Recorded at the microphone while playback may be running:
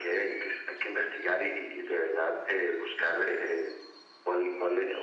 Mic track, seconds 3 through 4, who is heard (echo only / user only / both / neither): echo only